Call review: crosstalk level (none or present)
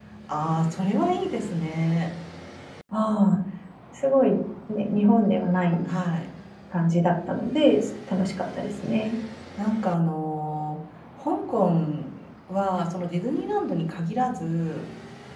none